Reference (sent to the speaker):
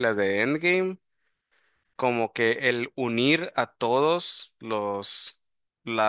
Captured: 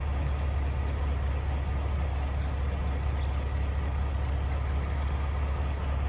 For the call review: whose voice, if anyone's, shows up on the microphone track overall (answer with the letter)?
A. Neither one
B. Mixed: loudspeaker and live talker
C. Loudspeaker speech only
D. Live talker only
A